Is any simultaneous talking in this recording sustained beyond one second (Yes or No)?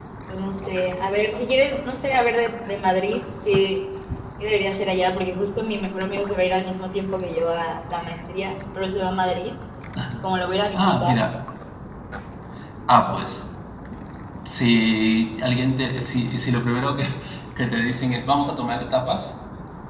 No